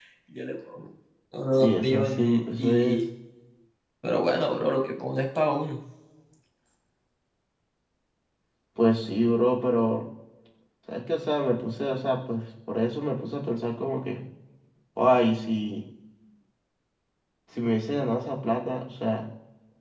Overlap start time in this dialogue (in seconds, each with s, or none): 1.6 s